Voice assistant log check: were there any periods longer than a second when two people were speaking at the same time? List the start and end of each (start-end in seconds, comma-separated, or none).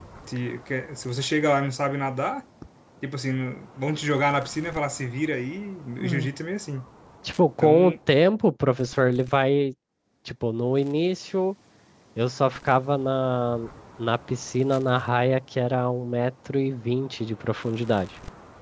none